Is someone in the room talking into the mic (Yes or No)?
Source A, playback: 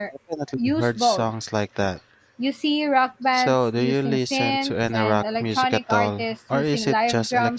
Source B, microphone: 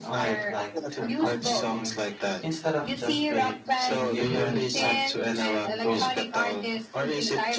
Yes